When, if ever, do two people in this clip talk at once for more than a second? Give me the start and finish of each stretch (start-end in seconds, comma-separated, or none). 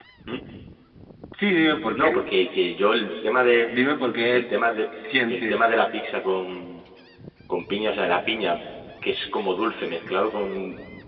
none